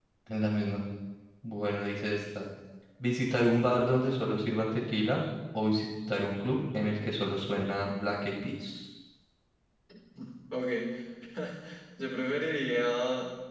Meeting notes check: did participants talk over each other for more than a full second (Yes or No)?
No